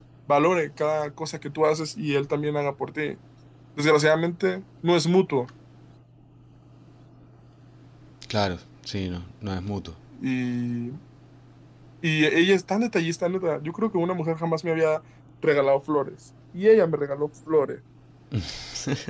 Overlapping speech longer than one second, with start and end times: none

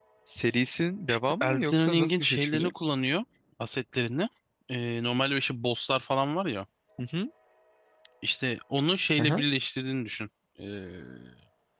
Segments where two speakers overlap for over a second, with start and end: 1.4-2.7

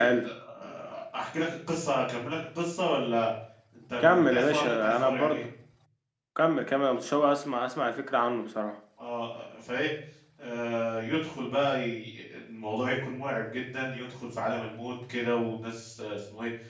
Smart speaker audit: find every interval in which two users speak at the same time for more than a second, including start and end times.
4.0-5.4

